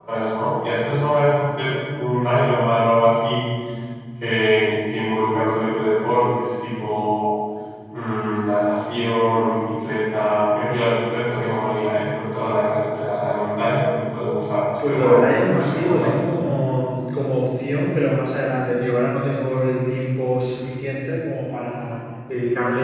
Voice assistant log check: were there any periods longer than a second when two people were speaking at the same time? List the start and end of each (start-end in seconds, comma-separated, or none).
14.9-16.2